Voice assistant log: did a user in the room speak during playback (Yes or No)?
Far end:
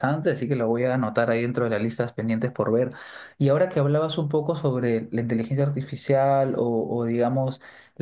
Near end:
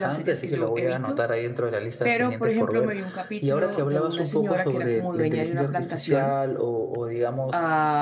Yes